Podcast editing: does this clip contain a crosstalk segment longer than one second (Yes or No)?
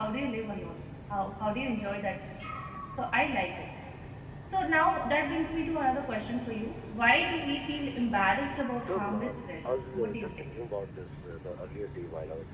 Yes